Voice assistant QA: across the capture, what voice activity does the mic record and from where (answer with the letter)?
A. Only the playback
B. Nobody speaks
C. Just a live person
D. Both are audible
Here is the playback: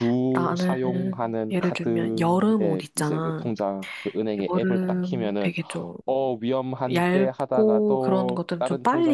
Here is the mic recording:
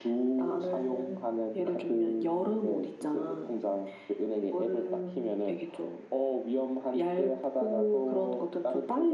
A